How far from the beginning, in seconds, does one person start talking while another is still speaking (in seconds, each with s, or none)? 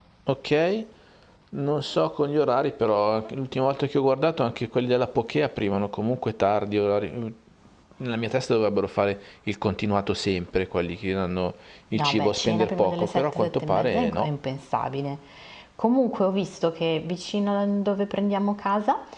11.9 s